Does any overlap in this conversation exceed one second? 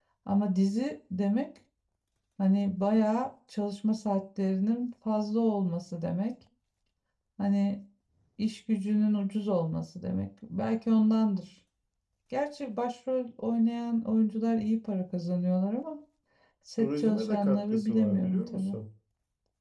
Yes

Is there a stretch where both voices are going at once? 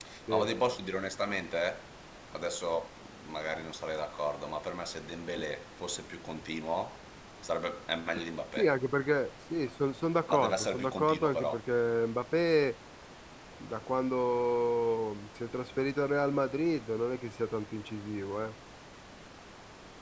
Yes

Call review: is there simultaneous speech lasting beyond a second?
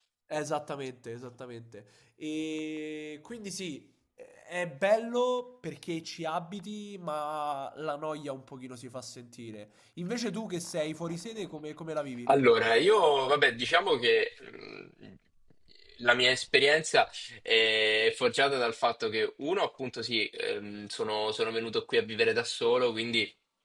No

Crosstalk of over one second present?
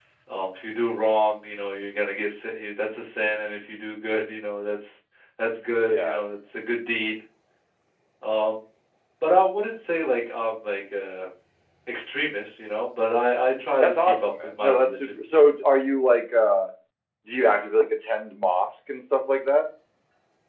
Yes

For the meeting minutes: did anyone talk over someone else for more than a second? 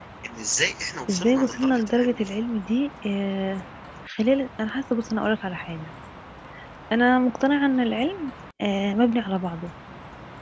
Yes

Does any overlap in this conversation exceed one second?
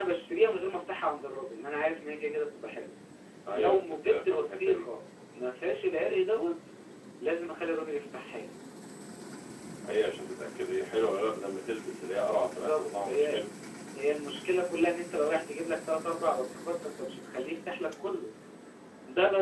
Yes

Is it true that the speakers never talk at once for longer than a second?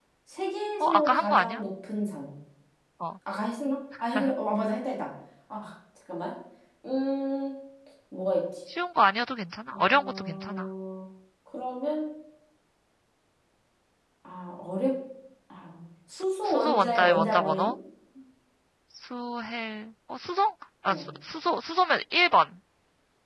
No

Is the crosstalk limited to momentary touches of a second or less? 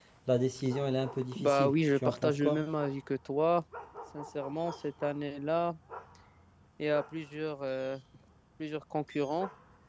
No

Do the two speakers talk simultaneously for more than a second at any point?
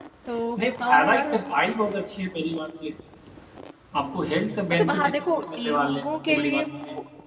Yes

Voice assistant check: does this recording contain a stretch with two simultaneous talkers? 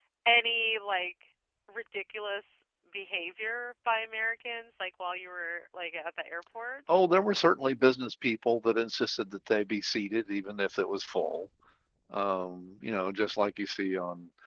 No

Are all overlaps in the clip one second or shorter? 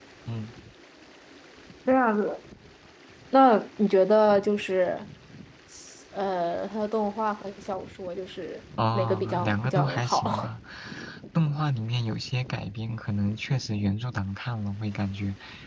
No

